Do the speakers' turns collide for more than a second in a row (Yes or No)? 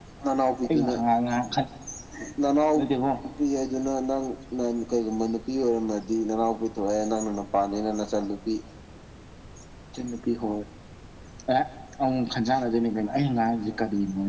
No